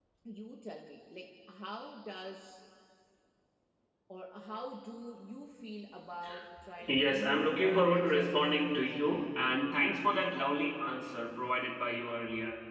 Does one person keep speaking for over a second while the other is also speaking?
Yes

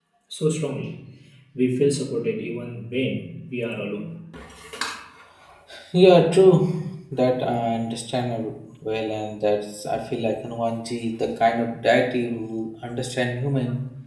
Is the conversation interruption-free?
Yes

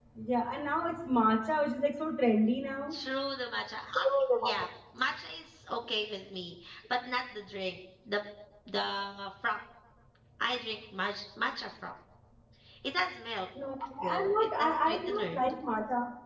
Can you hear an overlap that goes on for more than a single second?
Yes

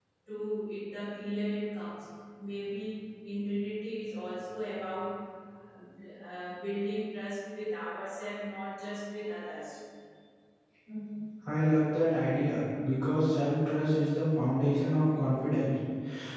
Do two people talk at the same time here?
No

